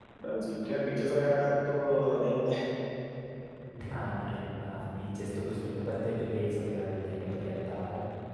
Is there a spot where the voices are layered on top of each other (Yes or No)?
No